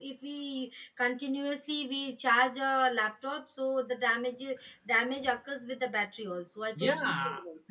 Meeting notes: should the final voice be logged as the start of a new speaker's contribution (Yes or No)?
Yes